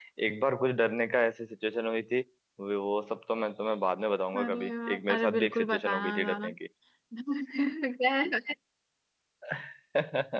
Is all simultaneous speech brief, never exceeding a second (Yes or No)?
No